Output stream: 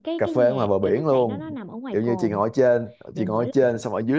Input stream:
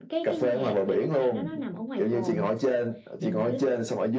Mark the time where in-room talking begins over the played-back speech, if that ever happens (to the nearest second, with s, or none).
none